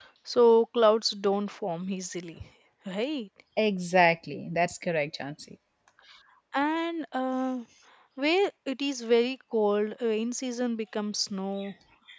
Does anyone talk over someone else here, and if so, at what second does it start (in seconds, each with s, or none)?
none